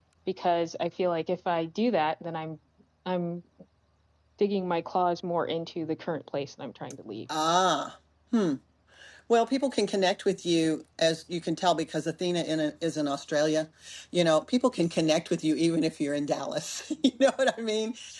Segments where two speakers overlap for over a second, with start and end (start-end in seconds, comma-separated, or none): none